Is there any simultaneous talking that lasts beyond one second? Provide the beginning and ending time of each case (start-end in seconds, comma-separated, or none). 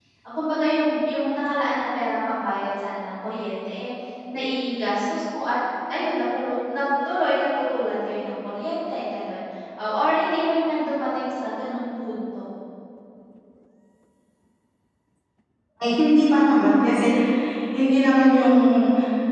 none